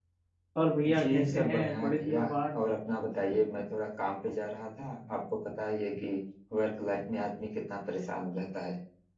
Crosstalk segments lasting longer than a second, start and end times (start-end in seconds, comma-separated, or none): 1.0-2.2